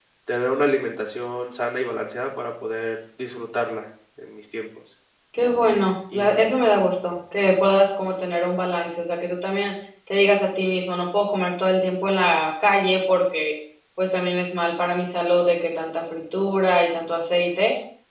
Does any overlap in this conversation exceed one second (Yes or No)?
No